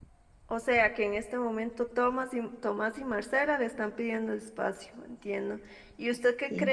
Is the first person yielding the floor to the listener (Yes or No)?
No